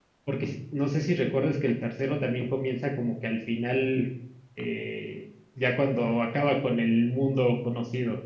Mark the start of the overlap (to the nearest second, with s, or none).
none